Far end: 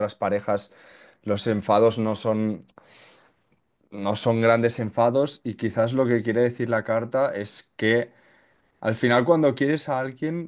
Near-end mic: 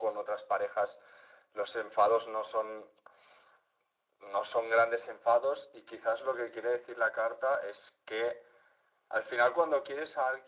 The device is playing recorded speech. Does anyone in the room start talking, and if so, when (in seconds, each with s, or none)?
none